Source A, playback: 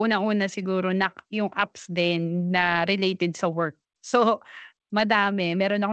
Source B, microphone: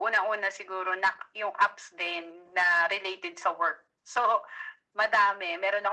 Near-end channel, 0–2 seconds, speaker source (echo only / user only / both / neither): echo only